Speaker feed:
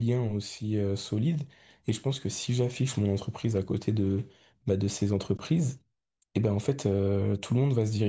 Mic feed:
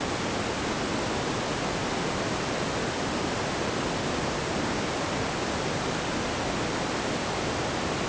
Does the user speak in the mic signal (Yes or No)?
No